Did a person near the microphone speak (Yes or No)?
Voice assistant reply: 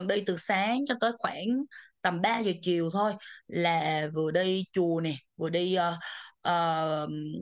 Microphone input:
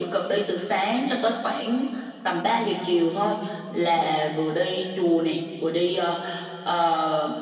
No